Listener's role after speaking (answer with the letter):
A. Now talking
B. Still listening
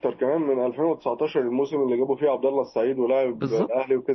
A